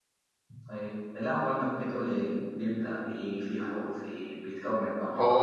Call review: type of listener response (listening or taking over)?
taking over